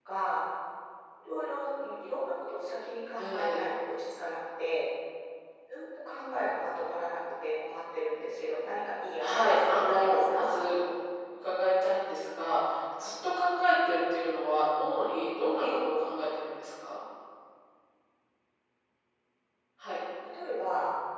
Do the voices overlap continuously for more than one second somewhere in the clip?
Yes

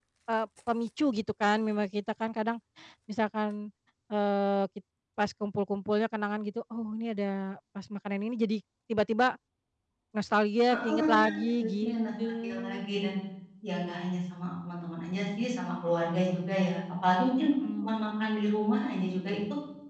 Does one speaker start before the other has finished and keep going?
Yes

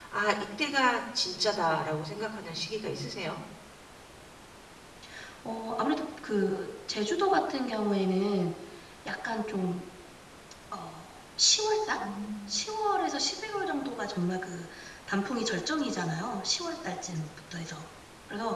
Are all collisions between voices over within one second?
Yes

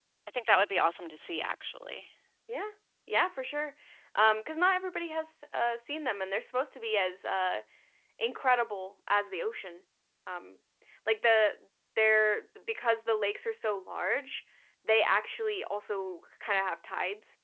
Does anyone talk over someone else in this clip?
No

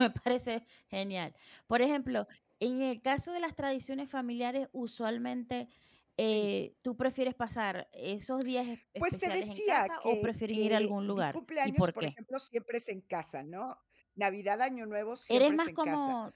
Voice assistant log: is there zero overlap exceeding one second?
No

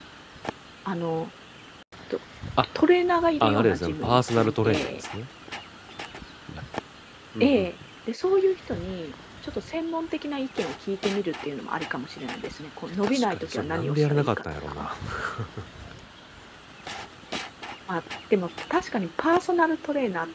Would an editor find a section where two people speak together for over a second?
Yes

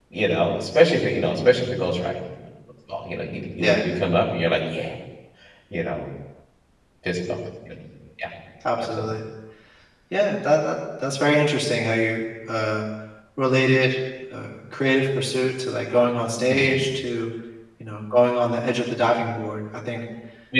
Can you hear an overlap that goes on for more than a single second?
No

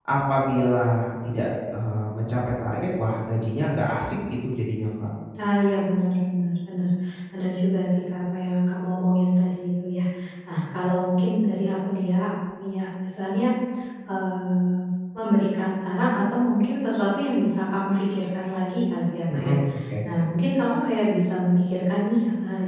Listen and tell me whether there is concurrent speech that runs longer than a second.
No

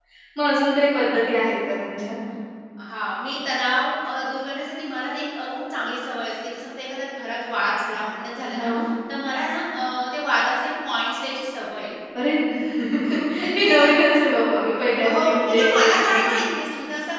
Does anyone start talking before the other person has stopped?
Yes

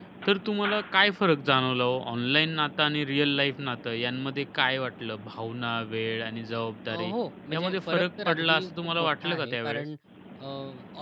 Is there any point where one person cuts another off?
Yes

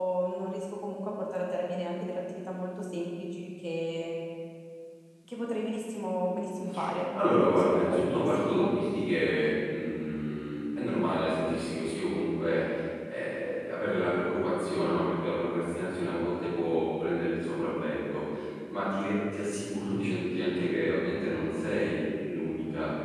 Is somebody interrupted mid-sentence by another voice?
Yes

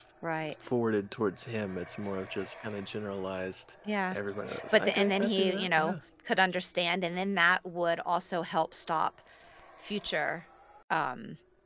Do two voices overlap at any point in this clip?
Yes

